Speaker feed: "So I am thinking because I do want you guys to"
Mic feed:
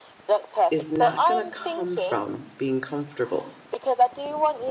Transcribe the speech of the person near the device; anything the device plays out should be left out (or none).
is not going to come from being comfortable.